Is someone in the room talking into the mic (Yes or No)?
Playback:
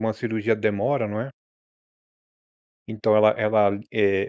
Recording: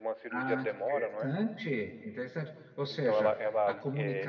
Yes